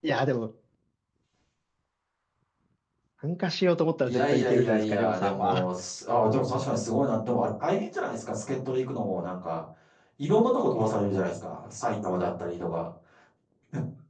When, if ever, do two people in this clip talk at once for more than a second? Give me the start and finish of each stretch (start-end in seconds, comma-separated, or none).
4.0-5.7